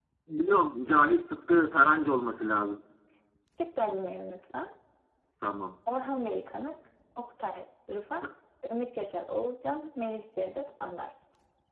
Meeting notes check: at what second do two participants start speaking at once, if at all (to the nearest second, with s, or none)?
none